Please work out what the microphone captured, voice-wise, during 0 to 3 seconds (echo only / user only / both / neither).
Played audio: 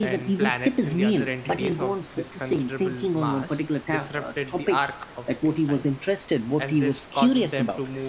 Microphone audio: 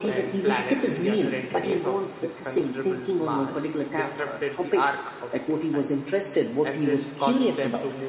echo only